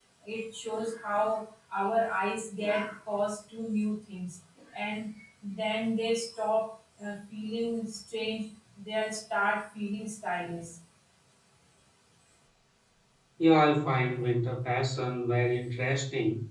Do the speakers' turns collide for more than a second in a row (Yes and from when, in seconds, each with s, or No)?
No